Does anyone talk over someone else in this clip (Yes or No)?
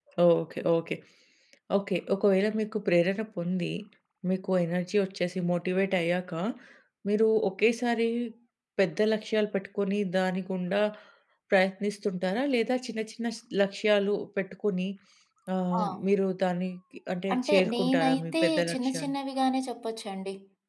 Yes